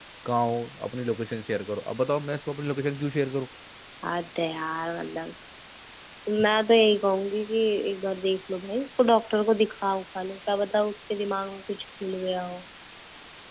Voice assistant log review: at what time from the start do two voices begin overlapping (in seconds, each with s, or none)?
none